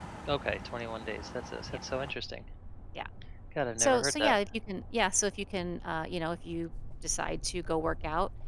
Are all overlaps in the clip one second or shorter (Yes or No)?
Yes